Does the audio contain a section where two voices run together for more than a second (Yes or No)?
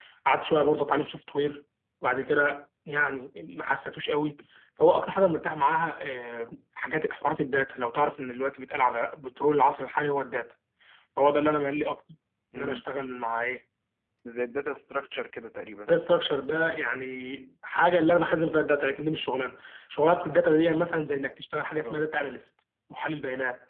No